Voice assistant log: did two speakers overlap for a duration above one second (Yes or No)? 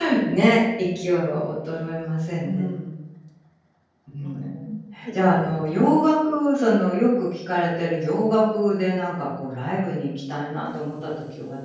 No